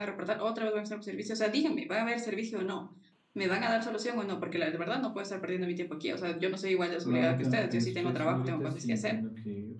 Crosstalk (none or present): present